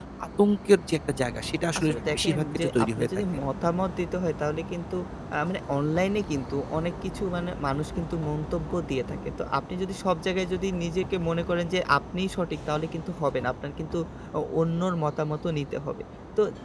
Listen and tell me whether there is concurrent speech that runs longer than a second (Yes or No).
Yes